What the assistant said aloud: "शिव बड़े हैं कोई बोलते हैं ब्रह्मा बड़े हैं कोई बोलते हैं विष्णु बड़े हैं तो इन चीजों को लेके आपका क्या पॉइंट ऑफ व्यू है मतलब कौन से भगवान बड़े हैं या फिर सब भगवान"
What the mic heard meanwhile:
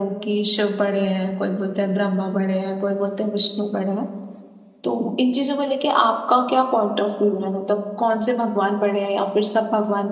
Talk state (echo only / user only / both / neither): echo only